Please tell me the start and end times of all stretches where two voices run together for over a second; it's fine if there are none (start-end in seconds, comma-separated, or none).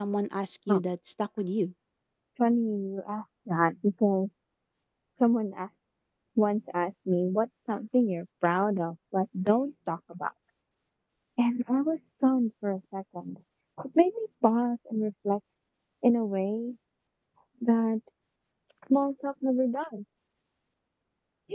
none